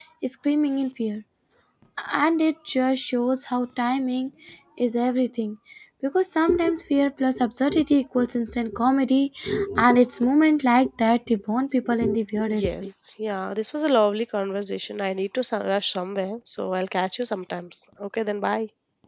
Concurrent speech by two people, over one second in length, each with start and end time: none

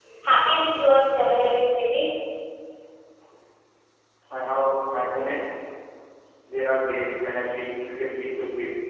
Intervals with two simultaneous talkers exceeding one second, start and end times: none

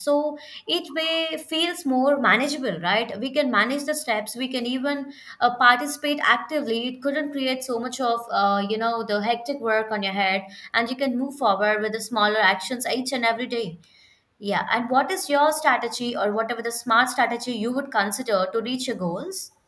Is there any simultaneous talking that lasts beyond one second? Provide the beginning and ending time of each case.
none

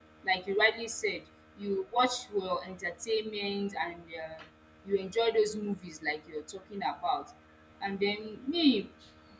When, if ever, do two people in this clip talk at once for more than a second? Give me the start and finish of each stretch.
none

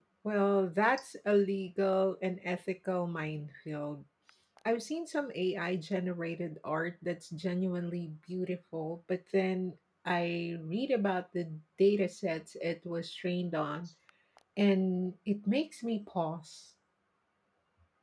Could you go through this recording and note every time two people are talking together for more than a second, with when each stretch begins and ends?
none

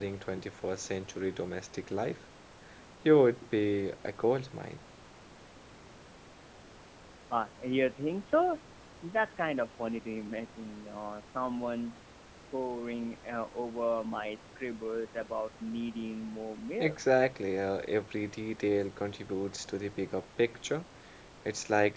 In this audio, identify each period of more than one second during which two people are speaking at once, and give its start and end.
none

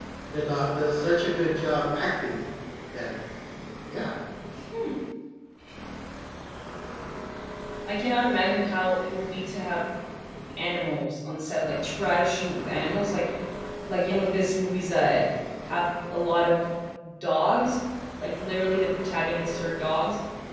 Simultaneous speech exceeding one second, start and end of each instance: none

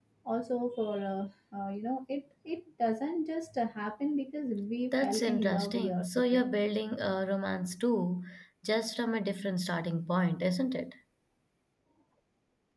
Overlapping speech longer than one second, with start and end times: 4.9-6.5

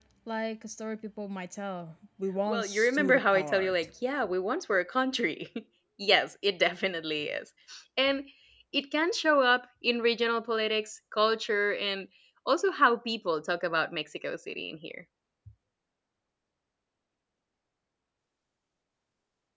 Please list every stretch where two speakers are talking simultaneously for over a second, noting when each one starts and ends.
2.5-3.7

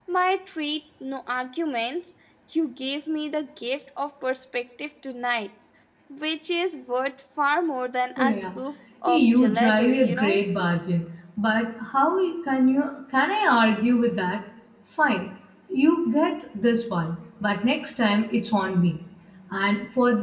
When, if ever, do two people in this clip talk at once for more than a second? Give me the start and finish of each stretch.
9.1-10.4

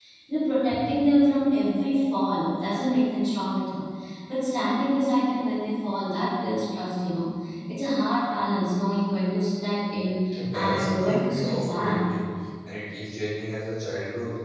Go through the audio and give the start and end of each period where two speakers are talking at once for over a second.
10.5-12.0

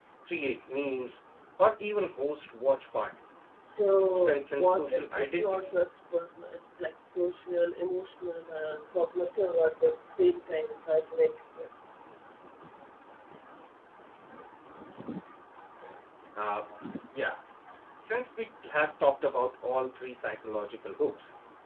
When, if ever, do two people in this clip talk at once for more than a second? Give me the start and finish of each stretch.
4.0-5.7

